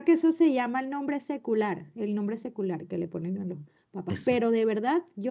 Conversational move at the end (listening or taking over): listening